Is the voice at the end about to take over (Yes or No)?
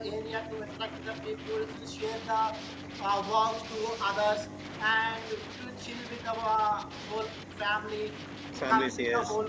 No